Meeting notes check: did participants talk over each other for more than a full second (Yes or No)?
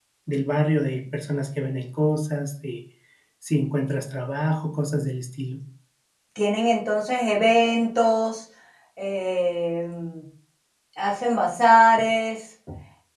No